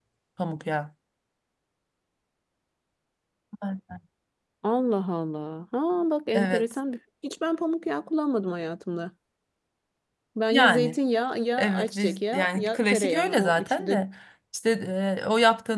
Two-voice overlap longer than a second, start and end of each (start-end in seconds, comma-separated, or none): 11.6-14.0